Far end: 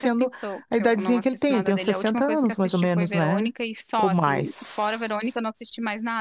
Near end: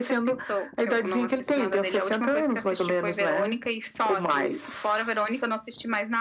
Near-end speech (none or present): none